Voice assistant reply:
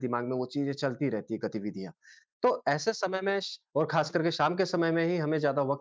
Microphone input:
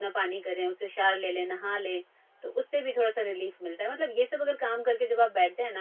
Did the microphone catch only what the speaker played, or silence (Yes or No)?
No